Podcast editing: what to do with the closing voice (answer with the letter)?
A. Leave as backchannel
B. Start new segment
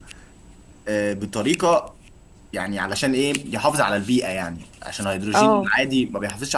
A